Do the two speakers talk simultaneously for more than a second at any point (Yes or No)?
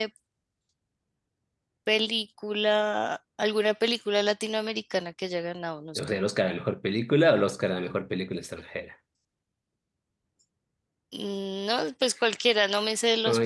No